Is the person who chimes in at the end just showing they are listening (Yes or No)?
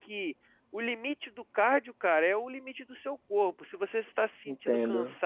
Yes